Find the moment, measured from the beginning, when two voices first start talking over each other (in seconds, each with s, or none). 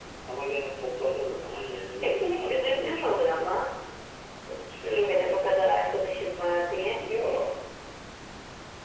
2.0 s